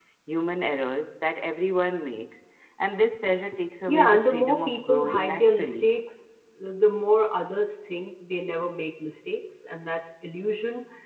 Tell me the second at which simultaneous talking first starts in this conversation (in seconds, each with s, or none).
3.9 s